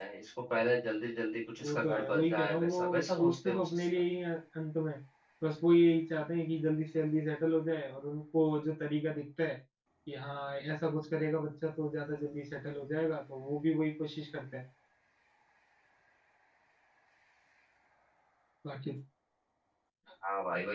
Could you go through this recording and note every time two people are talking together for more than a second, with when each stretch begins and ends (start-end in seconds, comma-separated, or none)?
1.6-3.8